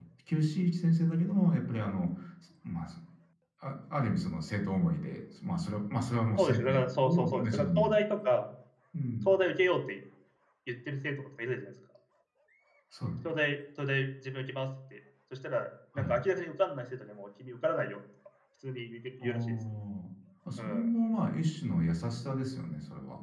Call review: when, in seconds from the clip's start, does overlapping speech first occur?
6 s

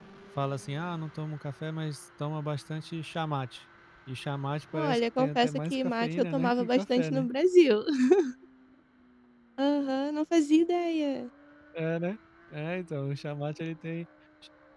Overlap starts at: 5 s

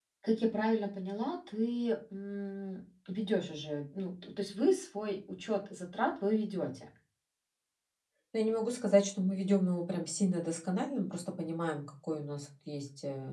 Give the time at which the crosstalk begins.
none

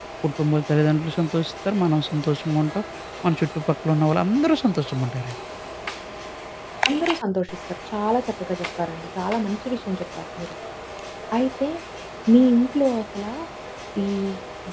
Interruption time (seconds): none

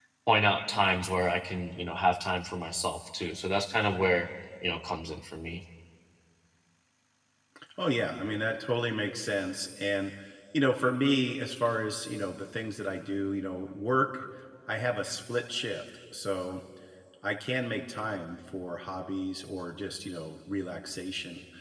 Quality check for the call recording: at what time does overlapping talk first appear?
none

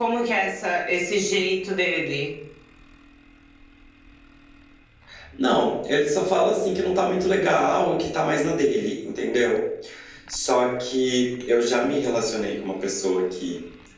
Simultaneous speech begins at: none

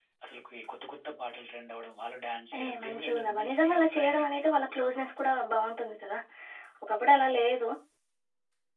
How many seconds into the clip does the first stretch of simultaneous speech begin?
3 s

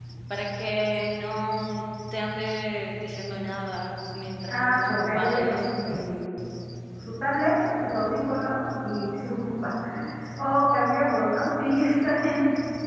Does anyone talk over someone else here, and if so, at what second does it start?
4 s

